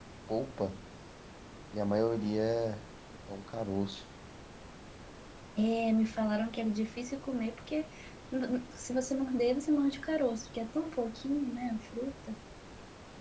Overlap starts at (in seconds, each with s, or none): none